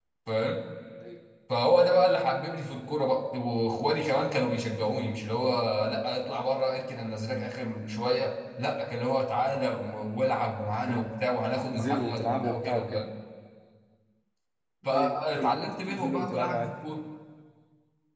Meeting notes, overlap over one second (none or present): present